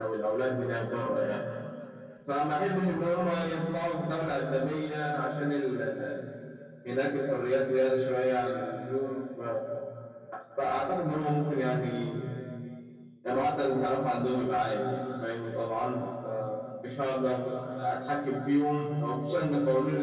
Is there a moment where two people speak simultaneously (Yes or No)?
No